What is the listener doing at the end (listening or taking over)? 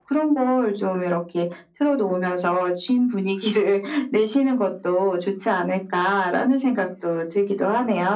taking over